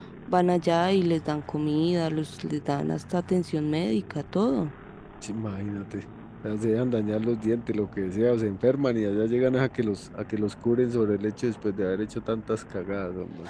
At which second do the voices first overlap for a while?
none

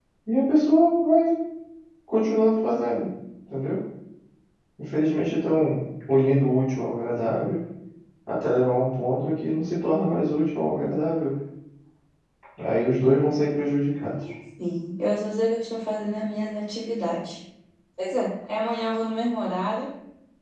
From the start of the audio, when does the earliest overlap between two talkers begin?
none

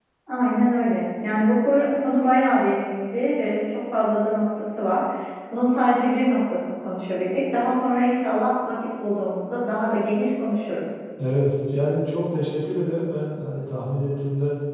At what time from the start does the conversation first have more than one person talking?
none

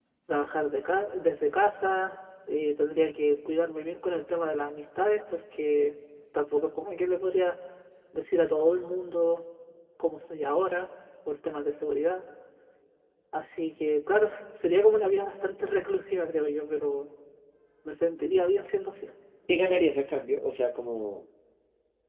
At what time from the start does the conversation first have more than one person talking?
none

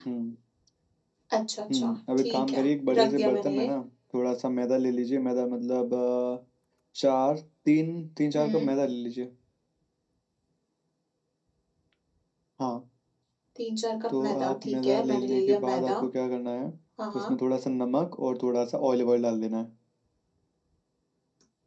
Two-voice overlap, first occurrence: 1.7 s

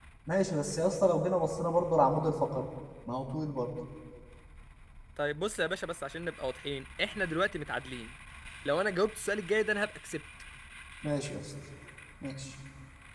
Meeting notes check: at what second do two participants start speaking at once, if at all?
none

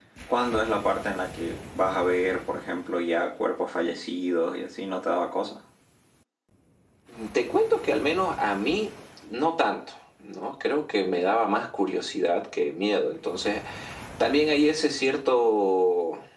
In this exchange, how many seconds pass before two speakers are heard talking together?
none

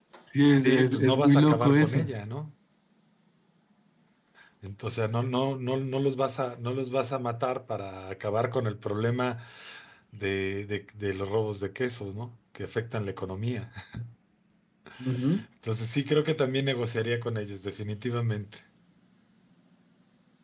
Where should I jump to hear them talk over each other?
0.6 s

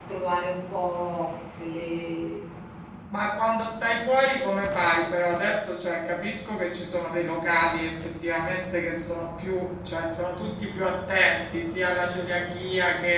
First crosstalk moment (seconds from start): none

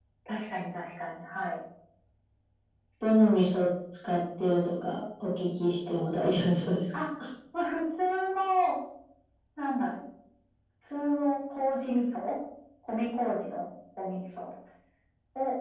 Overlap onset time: none

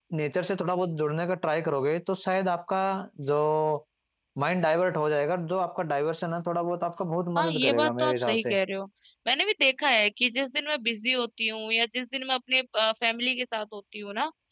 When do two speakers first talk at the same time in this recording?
7.3 s

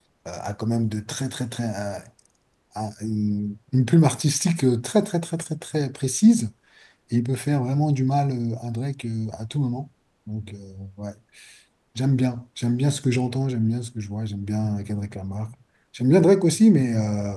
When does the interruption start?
none

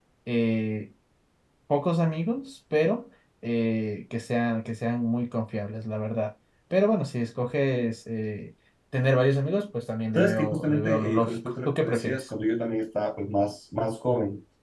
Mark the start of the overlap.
10.2 s

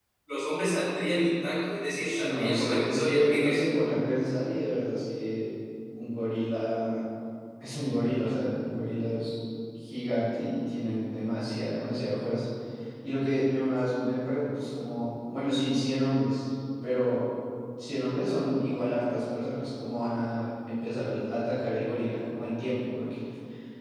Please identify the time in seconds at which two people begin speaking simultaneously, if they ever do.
2.0 s

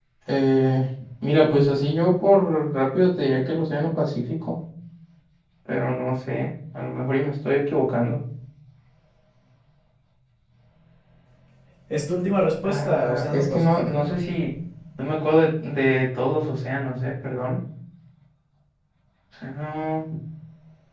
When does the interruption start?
12.7 s

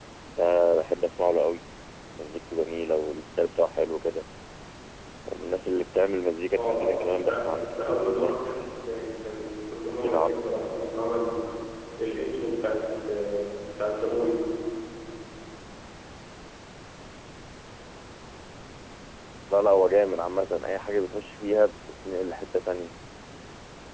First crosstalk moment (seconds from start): 6.6 s

